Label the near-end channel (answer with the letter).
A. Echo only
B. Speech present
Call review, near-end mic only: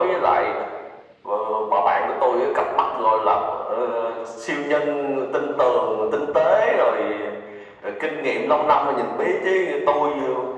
A